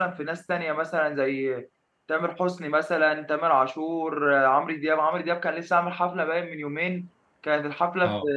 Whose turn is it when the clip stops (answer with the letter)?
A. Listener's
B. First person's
B